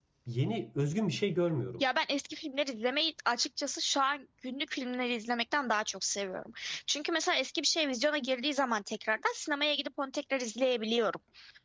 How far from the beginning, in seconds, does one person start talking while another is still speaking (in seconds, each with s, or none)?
none